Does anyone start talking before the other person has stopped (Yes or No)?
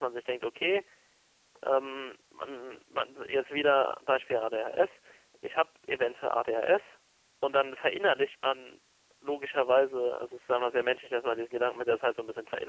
No